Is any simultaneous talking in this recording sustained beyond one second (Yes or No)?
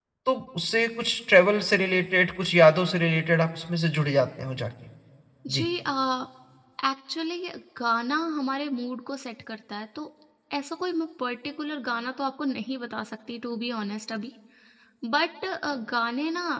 No